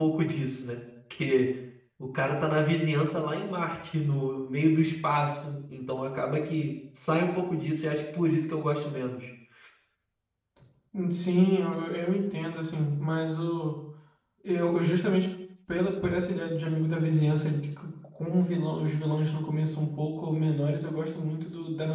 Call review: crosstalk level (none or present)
none